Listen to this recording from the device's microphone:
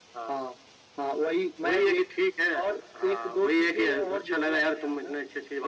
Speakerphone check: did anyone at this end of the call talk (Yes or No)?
No